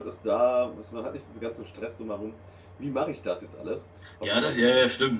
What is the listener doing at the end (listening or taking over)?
taking over